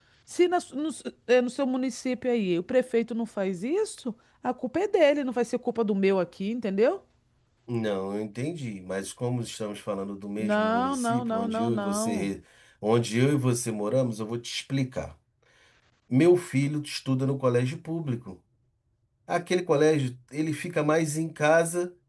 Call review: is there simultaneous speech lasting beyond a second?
Yes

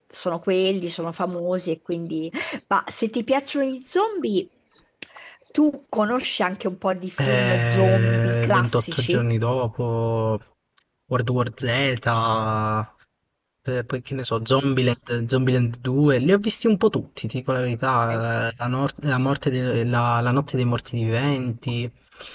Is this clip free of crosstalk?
No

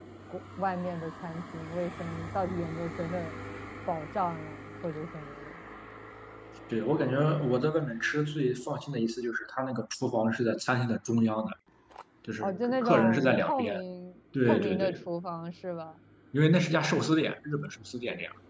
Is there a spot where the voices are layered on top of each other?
Yes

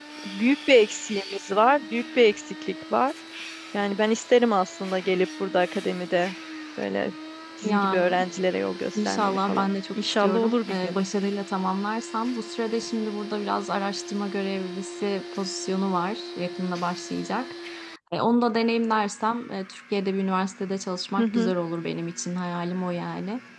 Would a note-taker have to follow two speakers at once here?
Yes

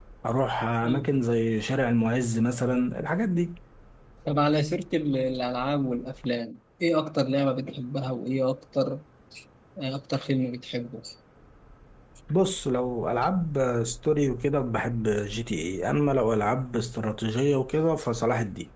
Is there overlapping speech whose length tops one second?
No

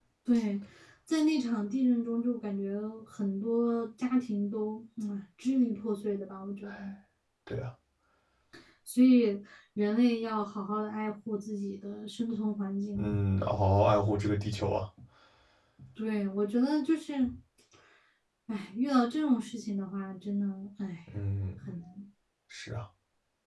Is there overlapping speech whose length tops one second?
No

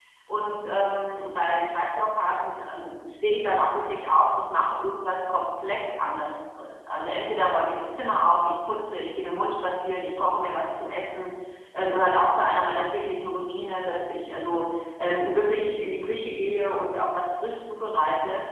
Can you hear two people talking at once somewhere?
No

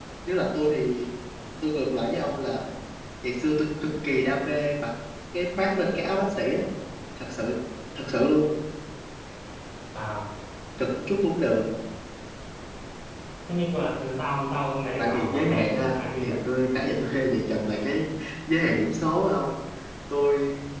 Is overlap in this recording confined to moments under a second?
No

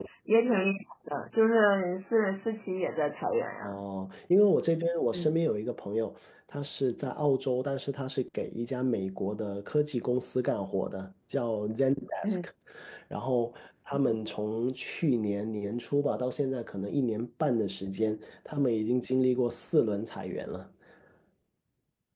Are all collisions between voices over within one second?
Yes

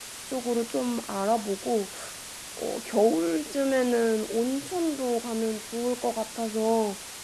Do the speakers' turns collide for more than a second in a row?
No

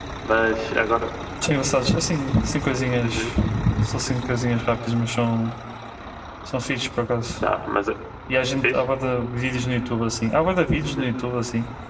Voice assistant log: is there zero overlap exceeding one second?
Yes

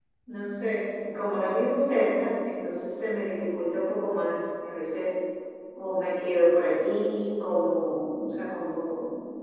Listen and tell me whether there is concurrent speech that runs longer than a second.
No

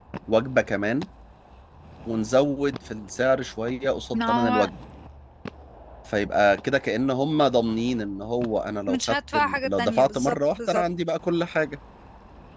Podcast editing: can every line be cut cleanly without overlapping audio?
No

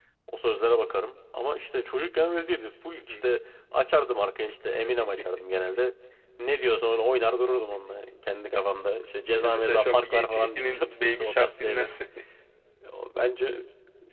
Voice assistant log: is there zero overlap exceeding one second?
No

